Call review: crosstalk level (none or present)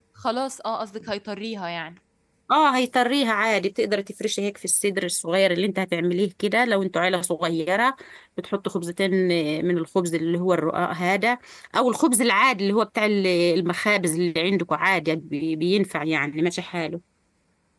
none